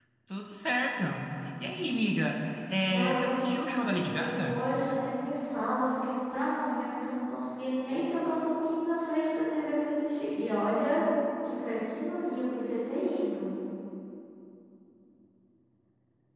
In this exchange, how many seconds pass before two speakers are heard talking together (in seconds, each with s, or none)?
2.9 s